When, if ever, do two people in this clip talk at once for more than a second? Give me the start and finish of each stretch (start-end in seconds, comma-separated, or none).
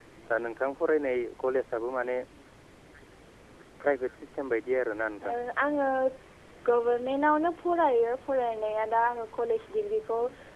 none